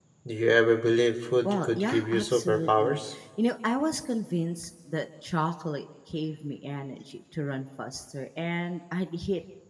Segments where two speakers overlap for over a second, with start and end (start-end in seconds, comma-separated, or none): 1.4-3.0